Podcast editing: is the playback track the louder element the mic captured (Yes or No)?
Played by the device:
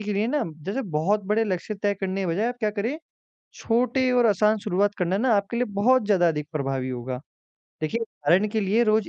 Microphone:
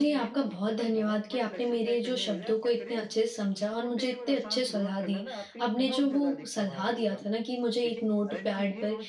No